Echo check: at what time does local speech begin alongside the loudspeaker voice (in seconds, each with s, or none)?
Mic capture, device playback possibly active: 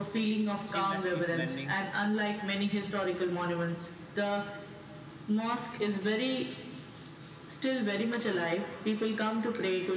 0.6 s